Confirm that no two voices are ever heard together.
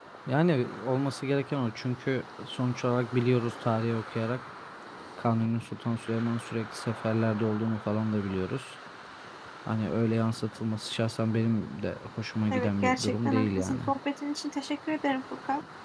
No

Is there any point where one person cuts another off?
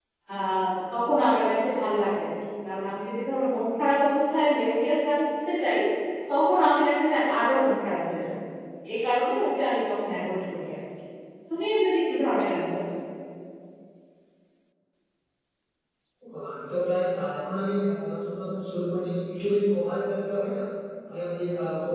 No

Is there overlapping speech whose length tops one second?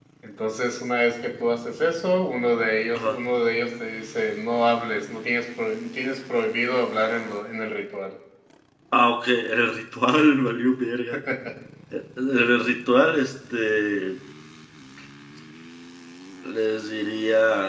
No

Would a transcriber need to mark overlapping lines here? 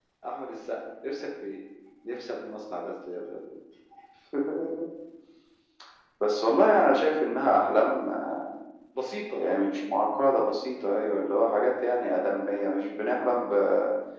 No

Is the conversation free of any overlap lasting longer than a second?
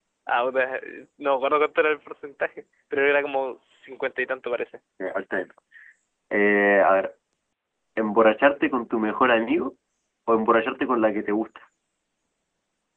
Yes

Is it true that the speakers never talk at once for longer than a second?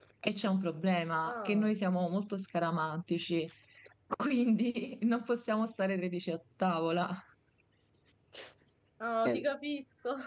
Yes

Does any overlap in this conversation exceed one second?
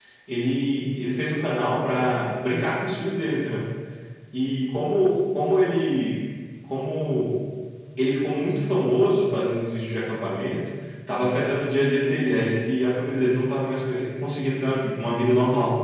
No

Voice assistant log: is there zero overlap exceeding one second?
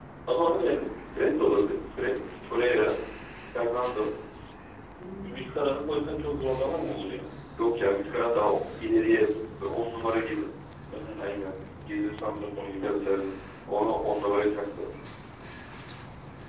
Yes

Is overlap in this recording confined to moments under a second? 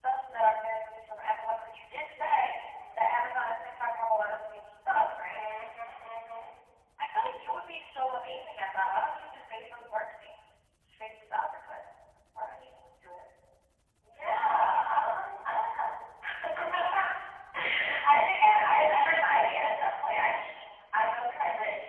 Yes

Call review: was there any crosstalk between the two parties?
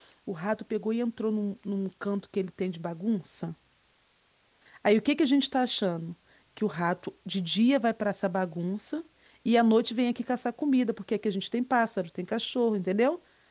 No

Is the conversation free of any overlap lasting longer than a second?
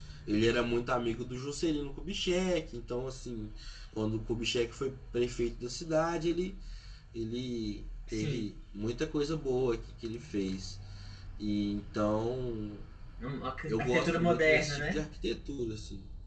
No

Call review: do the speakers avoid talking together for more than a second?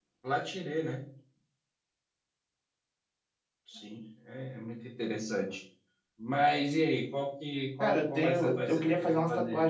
No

